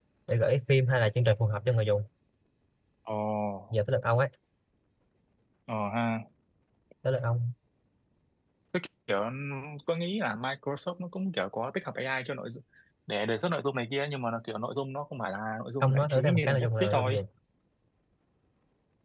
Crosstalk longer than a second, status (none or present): present